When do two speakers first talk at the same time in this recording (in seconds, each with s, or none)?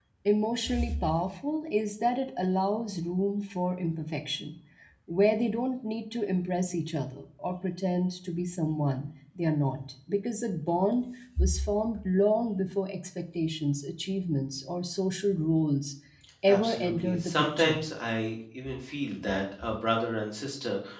16.5 s